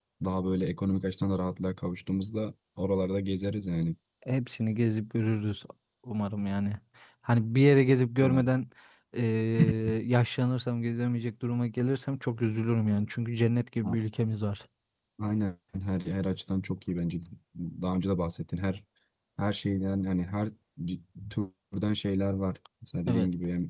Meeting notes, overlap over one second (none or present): none